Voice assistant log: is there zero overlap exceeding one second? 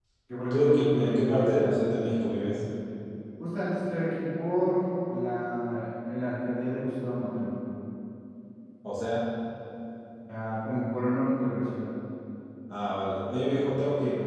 No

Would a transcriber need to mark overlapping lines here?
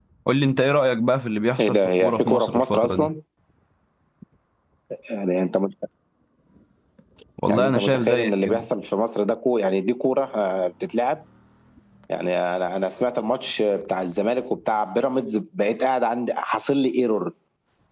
Yes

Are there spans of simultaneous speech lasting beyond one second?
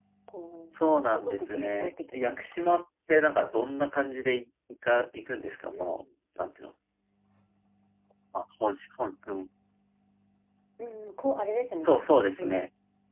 Yes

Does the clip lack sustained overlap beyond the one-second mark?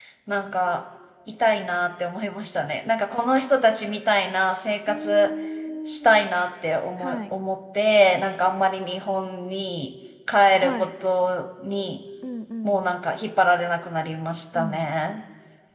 Yes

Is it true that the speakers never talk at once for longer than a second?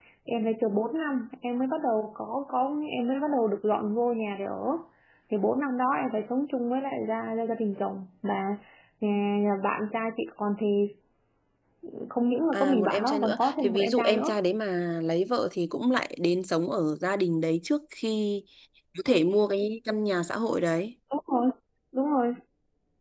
No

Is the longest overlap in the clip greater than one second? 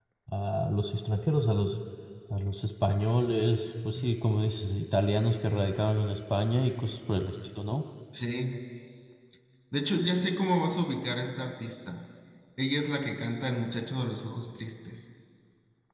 No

